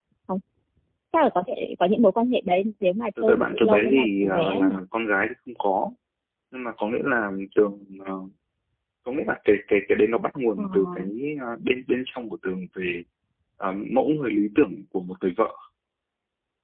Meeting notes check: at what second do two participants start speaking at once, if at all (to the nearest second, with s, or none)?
3 s